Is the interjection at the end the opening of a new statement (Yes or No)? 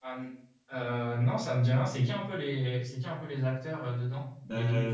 Yes